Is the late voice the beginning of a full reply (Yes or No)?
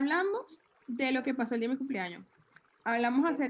No